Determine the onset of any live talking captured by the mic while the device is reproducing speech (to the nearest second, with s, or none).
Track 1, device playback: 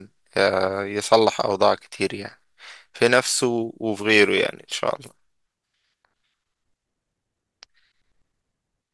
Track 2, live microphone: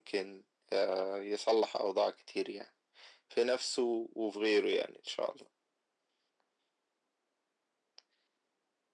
none